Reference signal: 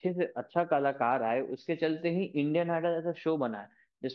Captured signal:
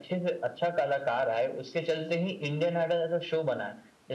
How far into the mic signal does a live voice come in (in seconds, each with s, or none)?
none